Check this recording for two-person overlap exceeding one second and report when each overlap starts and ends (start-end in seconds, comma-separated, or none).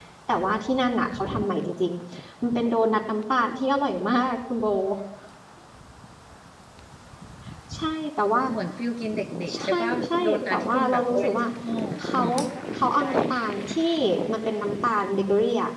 9.6-11.4